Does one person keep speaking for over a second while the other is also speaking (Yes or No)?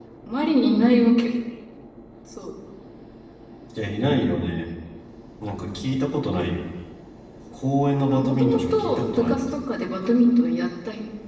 Yes